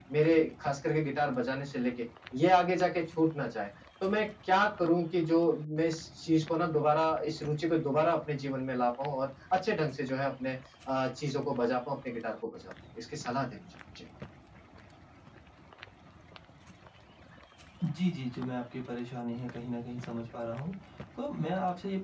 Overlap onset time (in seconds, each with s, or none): none